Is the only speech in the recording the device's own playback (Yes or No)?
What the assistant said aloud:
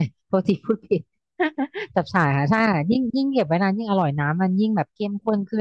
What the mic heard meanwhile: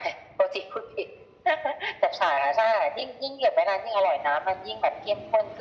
Yes